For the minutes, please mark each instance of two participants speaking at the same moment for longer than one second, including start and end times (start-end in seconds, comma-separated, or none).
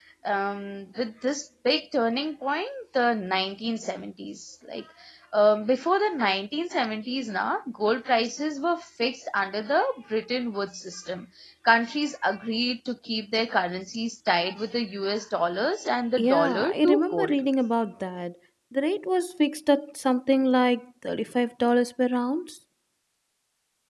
16.2-17.4